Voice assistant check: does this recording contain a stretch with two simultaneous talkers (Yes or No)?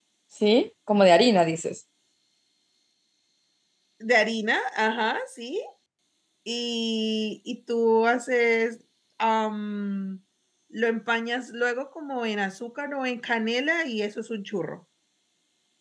No